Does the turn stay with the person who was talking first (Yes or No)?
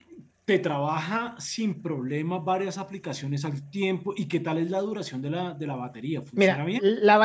No